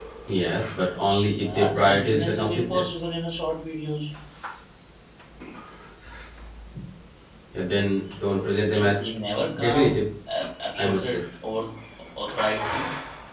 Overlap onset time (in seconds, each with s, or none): 1.4 s